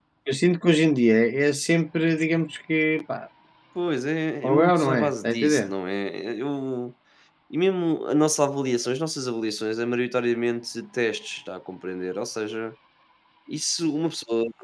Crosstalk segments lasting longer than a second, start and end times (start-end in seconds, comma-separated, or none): 4.4-5.7